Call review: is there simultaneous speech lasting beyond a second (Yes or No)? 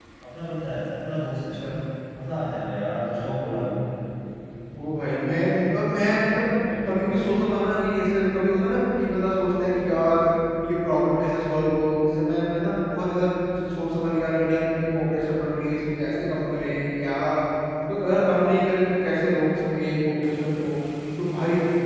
No